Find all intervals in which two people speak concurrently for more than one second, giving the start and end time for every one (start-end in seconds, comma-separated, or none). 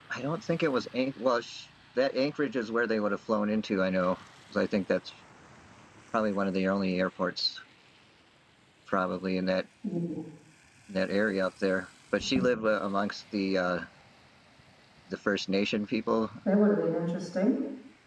none